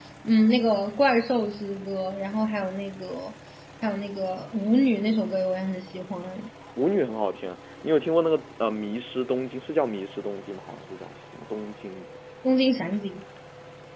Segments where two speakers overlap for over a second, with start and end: none

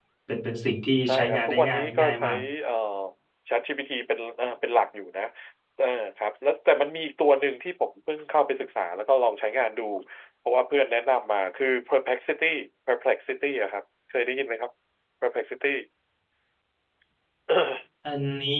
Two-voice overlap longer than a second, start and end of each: 1.0-2.2

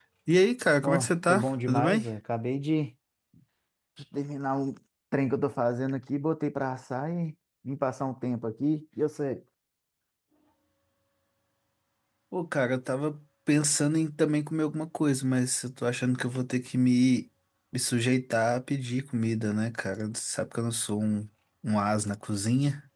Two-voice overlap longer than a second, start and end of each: 0.8-2.0

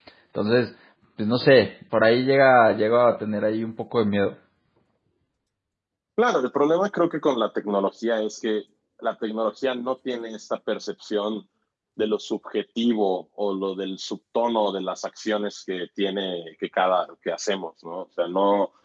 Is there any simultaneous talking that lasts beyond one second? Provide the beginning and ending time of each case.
none

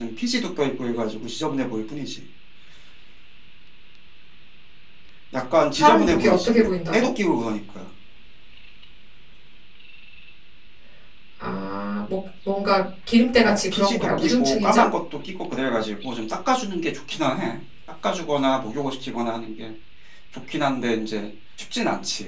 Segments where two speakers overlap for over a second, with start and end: 5.8-7.1, 13.4-14.8

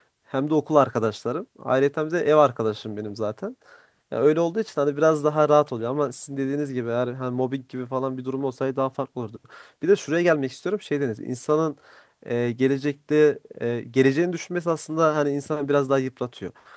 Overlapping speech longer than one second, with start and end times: none

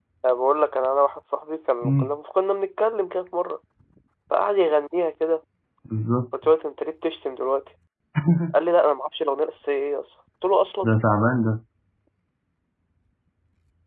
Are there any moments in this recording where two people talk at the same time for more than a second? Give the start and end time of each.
none

